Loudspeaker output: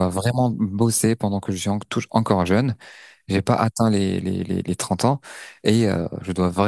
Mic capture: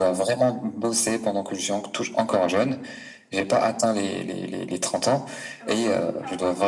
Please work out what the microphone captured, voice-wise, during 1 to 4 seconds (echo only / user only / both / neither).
echo only